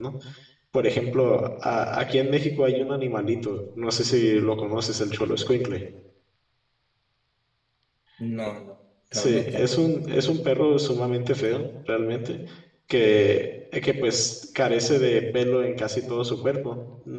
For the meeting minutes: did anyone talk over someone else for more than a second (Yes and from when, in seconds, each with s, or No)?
No